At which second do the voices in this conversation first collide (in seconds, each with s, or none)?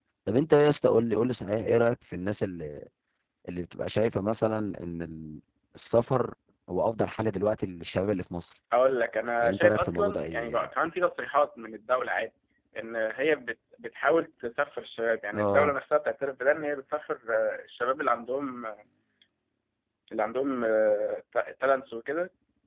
9.4 s